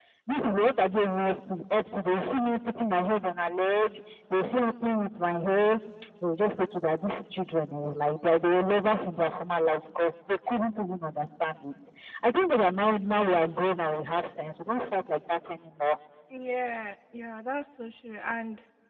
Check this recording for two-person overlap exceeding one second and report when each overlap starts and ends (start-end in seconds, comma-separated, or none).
none